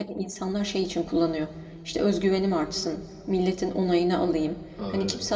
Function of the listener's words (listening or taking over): listening